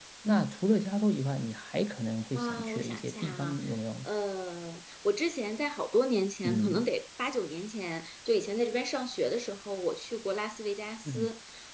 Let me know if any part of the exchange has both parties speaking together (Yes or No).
Yes